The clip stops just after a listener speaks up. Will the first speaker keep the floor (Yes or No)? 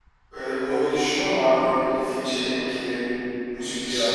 No